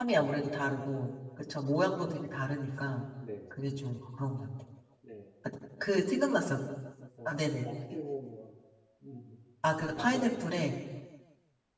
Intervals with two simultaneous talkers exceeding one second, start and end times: none

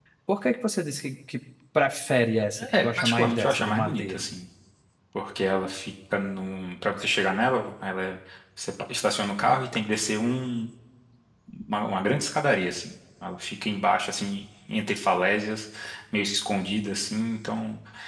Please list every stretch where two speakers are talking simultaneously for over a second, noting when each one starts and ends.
2.7-4.2

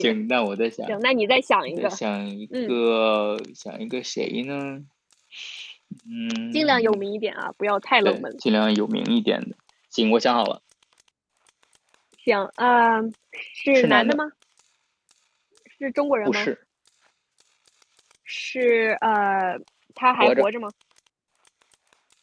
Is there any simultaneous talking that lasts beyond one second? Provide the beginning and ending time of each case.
none

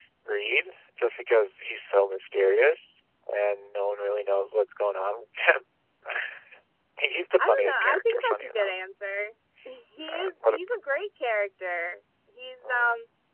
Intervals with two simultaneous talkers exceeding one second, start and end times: 7.4-8.8

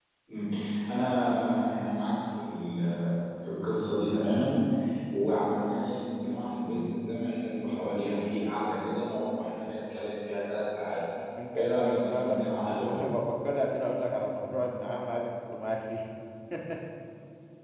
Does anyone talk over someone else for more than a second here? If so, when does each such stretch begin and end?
11.5-12.9

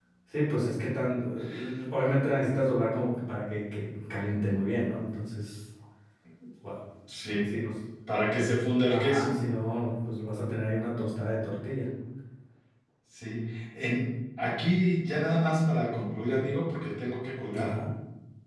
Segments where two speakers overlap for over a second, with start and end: none

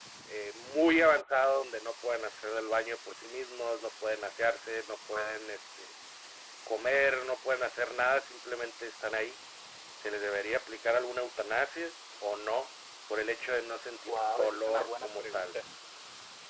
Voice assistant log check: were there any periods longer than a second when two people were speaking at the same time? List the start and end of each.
14.1-15.5

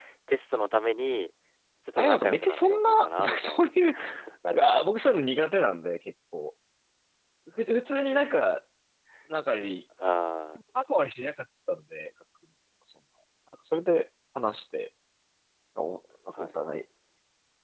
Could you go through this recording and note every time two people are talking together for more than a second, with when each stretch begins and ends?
2.0-3.7

